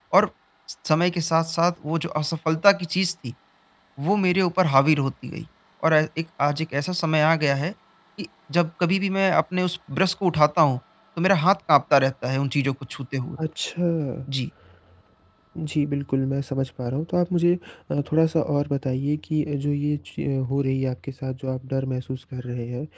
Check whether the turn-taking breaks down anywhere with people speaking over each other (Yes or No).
No